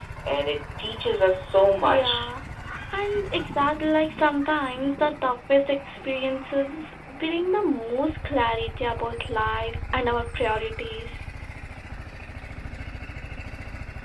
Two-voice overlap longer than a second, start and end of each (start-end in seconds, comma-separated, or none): none